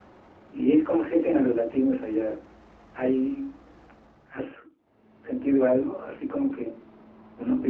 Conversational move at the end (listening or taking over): taking over